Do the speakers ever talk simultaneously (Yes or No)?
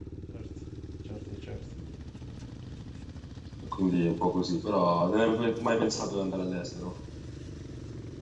No